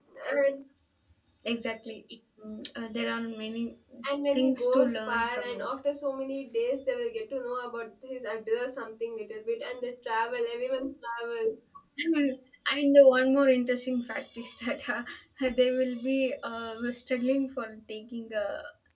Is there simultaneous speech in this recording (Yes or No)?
Yes